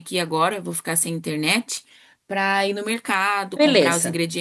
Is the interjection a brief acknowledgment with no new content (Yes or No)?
Yes